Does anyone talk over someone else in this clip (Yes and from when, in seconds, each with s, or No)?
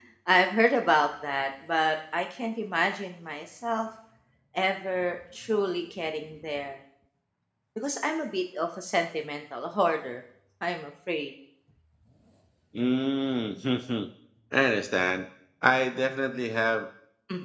No